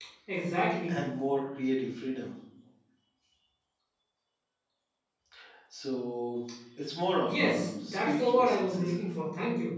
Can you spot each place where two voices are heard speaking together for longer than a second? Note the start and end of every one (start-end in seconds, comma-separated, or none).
7.3-9.0